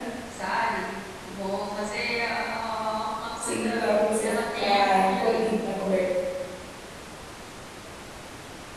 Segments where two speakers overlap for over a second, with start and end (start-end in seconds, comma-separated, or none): 3.4-5.4